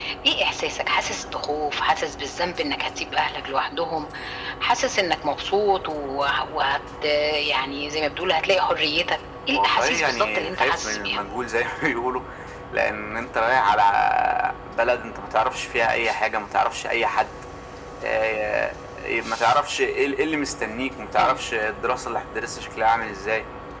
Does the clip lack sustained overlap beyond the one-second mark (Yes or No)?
No